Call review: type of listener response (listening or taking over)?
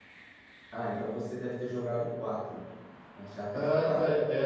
taking over